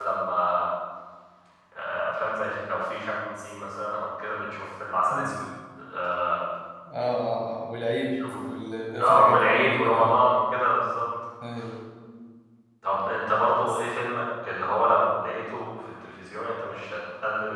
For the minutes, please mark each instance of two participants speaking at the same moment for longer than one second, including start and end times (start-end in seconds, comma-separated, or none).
9.0-10.2